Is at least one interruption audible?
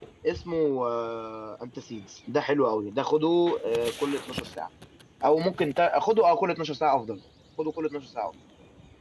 No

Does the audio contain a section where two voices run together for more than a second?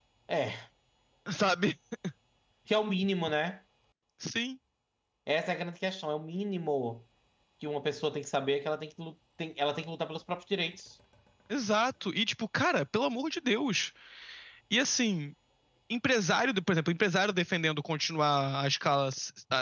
No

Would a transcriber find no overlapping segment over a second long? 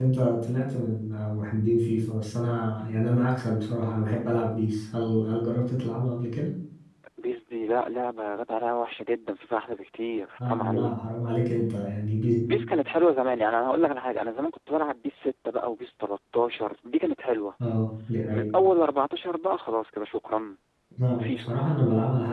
Yes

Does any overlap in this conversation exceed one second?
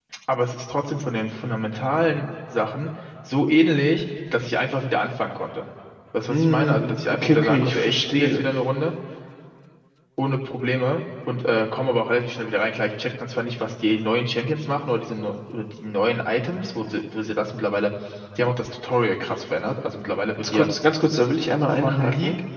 Yes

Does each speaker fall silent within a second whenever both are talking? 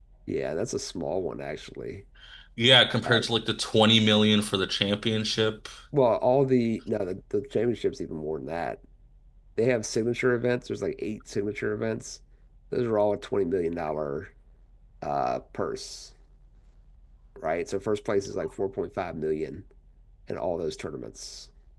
Yes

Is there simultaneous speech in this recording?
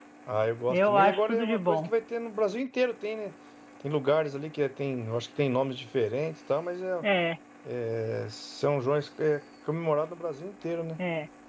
Yes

